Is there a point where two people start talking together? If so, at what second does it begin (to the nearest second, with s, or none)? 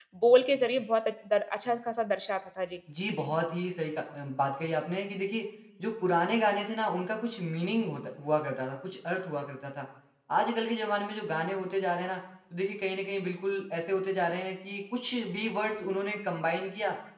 none